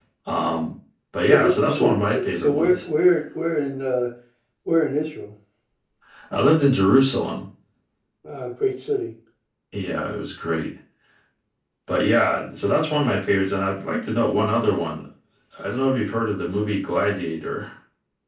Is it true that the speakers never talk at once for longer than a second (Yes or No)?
No